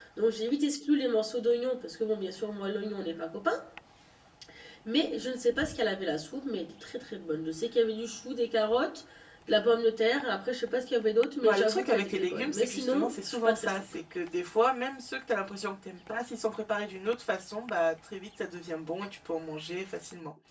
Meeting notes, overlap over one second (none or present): present